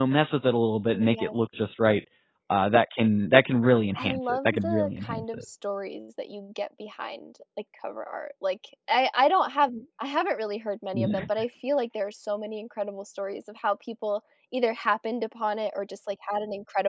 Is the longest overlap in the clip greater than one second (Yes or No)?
Yes